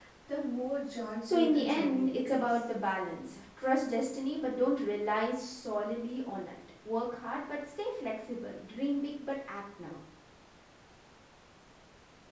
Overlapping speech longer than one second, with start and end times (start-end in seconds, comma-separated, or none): 1.3-2.7